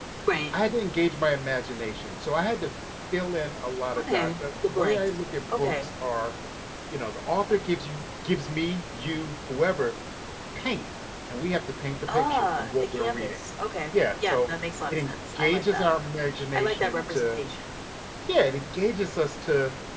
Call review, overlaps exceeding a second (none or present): present